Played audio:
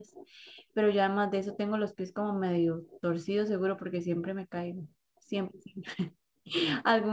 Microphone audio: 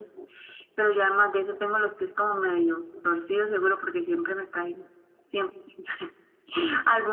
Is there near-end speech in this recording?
No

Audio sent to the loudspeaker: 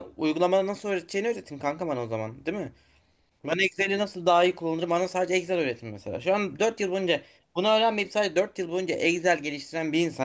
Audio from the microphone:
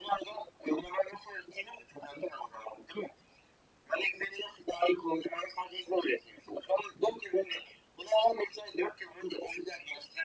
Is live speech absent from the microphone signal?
Yes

